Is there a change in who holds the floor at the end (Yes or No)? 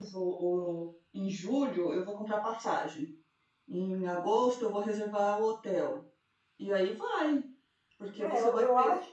Yes